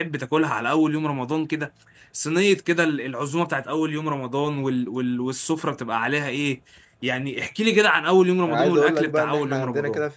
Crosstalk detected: Yes, from 8.5 s

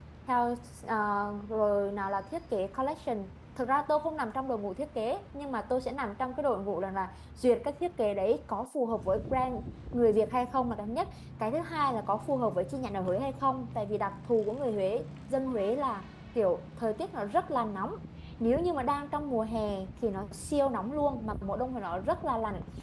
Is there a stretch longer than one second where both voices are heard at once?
No

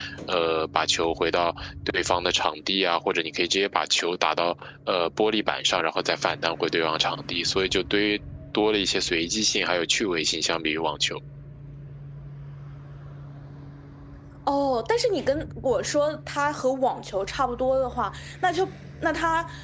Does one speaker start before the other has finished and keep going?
No

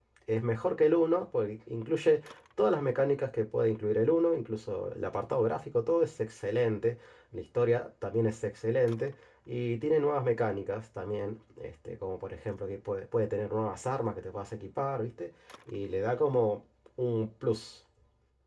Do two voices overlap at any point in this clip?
No

